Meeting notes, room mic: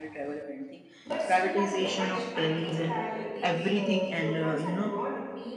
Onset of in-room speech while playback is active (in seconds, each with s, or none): 1.0 s